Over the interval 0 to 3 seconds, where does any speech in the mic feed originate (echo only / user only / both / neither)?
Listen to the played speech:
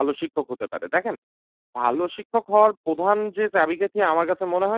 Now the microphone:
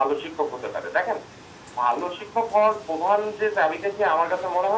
echo only